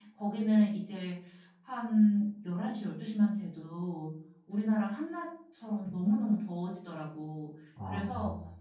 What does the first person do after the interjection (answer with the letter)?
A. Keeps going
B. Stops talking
A